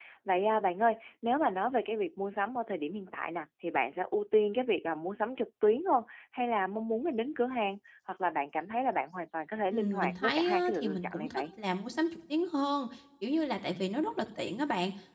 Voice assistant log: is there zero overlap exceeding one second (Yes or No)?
No